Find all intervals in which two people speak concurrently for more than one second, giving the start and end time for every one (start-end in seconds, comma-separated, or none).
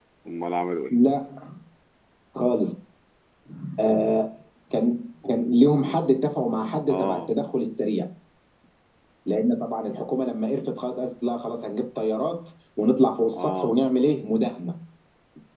none